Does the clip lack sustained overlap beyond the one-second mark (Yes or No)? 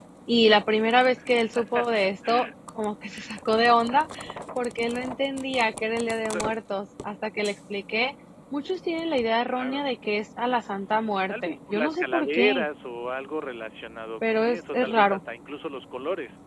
No